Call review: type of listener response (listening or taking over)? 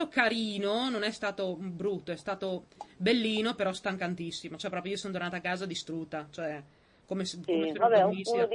taking over